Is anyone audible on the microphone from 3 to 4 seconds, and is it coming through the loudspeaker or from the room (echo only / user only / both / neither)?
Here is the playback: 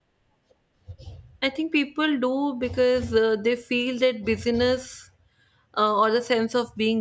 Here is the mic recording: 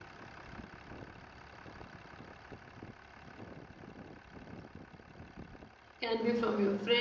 neither